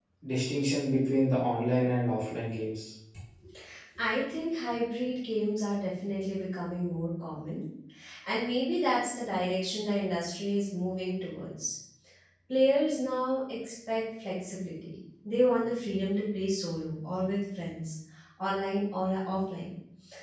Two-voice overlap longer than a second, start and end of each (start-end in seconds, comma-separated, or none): none